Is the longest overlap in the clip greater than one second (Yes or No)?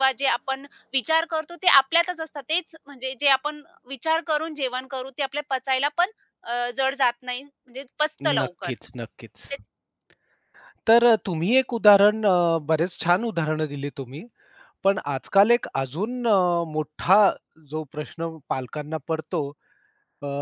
No